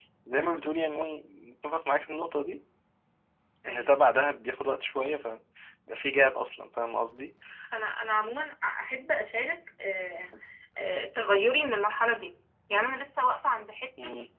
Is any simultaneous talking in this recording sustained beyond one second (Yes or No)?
No